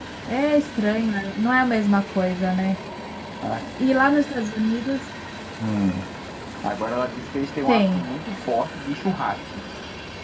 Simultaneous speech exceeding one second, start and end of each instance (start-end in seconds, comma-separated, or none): none